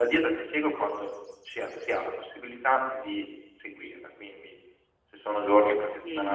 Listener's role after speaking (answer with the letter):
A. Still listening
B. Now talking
B